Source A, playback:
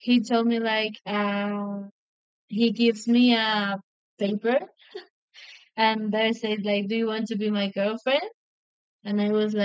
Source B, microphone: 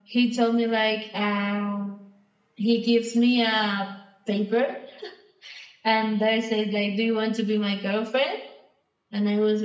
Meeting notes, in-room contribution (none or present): none